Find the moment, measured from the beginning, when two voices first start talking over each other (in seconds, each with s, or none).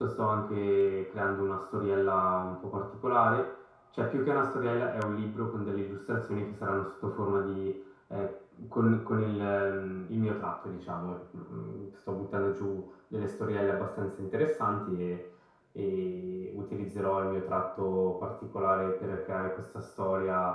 none